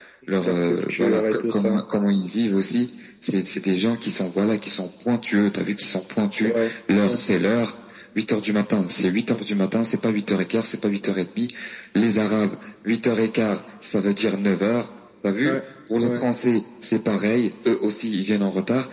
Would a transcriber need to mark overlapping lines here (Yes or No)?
Yes